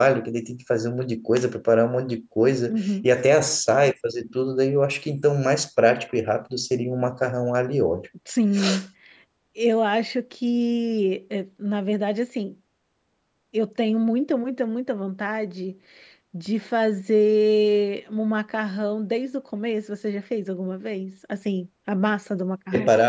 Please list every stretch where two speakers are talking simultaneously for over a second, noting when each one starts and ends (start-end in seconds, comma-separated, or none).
none